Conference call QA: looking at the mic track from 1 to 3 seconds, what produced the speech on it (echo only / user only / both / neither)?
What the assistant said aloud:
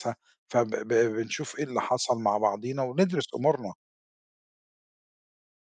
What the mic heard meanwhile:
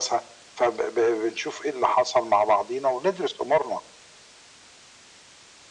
echo only